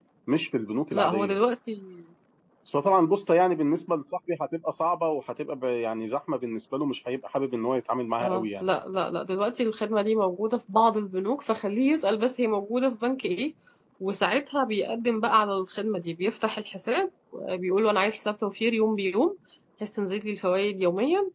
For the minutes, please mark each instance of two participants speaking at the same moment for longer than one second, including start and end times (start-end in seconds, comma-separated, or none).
none